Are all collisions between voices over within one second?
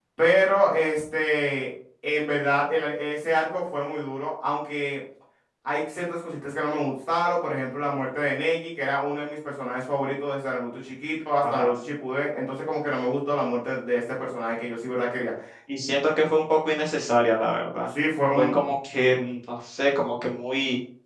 Yes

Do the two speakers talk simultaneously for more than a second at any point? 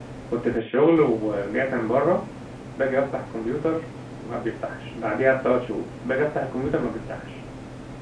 No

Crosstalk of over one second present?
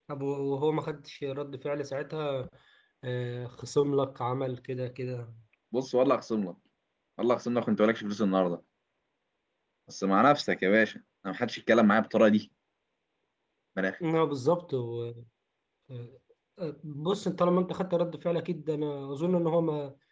No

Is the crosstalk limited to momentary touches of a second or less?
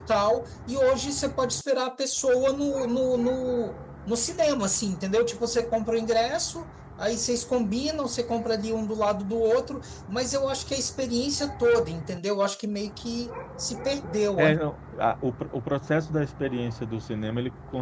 Yes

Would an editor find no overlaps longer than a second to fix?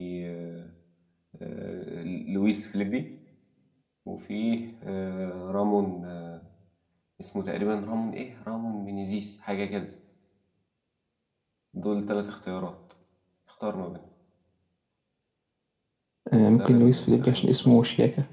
No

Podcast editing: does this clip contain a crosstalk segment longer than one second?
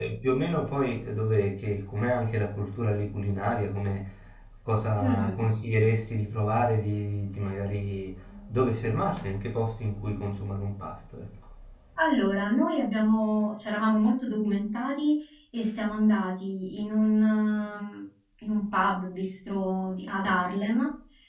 No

